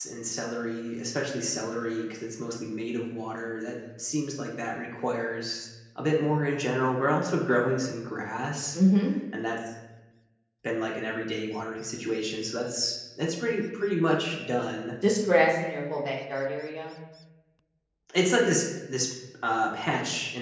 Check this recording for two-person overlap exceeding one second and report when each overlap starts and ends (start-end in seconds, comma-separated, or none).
none